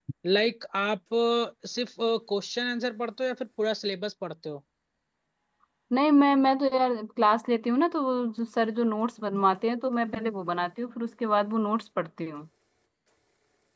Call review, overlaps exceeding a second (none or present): none